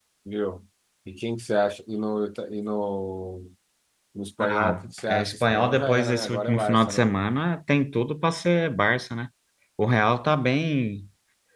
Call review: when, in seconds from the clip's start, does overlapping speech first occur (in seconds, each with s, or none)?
4.4 s